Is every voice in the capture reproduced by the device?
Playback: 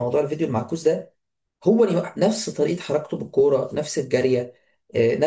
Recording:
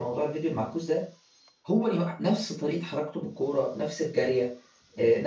Yes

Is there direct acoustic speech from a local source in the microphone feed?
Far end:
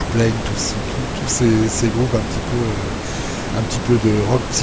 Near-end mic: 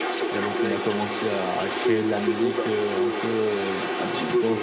Yes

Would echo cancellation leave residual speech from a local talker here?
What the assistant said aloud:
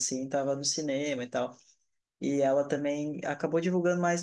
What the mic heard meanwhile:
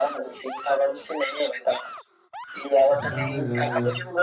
Yes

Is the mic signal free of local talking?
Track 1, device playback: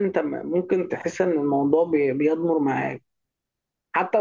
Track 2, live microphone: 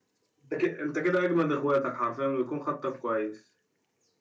No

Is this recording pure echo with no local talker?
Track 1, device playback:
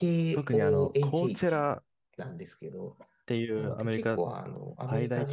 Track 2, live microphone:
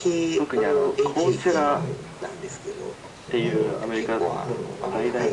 No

